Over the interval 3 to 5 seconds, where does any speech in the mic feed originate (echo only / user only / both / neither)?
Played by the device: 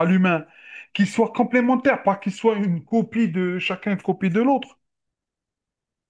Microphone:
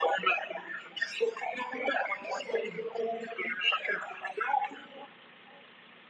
echo only